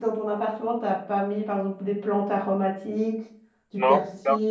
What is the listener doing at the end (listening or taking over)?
taking over